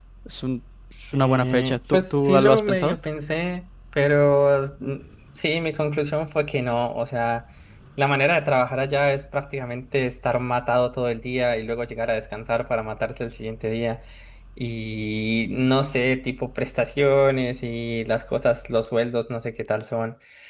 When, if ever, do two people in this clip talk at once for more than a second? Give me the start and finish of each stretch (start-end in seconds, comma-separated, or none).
1.1-3.0